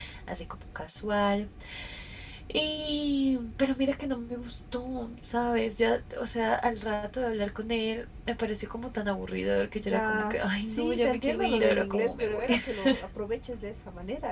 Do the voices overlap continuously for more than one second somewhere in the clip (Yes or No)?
Yes